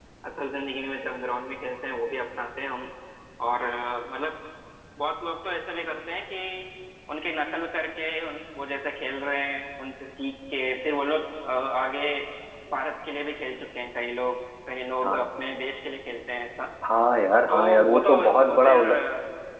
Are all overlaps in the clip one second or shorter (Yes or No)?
No